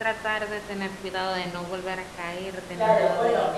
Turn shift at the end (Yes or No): Yes